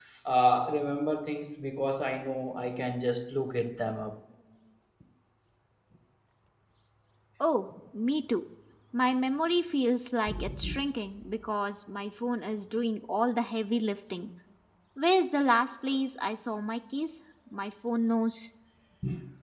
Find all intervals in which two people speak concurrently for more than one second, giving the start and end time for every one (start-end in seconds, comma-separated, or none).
none